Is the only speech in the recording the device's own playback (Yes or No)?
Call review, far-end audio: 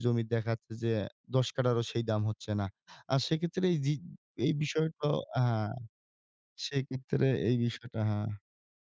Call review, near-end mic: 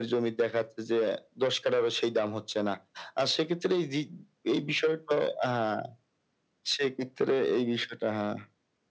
Yes